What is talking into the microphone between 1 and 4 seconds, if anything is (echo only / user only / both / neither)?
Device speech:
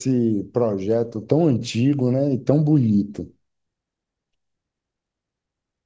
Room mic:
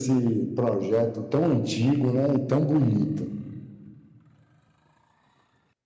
echo only